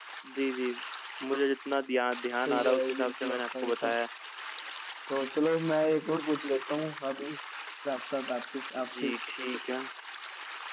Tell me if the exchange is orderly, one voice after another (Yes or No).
No